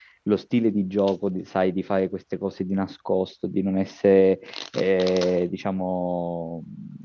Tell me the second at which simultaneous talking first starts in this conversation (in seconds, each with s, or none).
none